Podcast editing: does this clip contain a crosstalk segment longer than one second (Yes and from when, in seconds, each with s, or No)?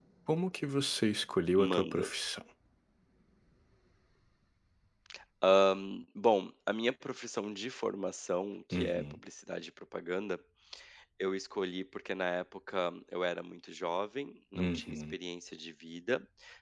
No